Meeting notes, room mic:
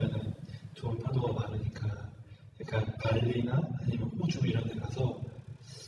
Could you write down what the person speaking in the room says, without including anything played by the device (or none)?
none